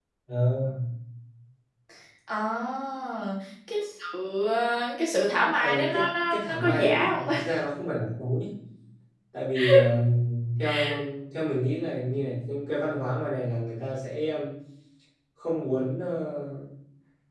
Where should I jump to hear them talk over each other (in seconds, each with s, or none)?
5.6 s